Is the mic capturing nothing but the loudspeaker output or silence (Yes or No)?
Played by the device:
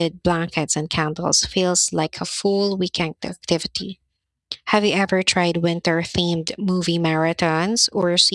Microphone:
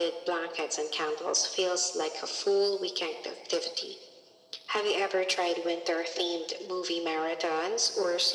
Yes